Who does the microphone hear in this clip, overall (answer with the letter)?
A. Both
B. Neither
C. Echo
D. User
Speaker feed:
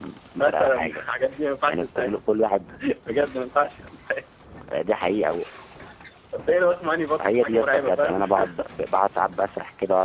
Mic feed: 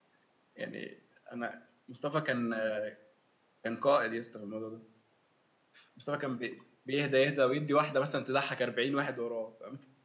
D